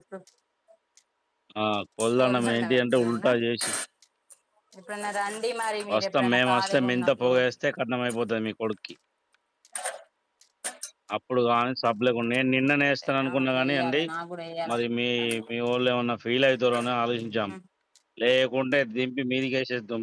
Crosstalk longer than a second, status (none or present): present